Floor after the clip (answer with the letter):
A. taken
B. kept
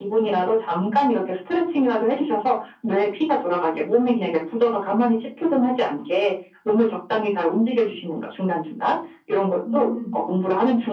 B